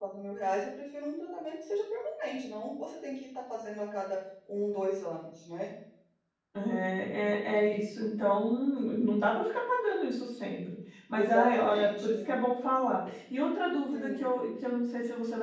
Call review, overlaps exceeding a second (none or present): present